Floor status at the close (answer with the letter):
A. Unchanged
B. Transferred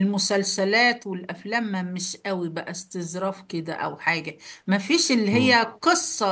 A